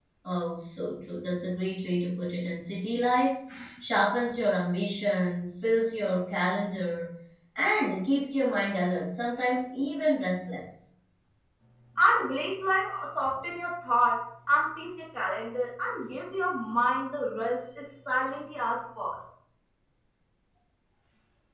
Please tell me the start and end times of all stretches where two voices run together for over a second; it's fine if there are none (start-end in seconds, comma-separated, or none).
none